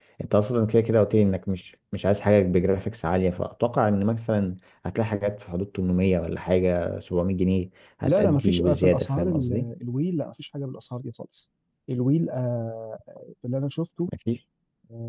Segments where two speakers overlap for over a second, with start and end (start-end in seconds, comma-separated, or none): 8.0-9.7